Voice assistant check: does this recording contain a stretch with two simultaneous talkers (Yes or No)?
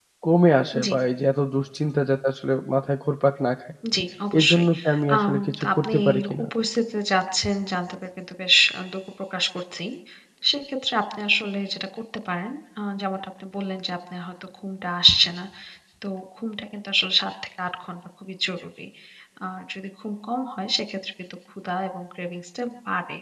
Yes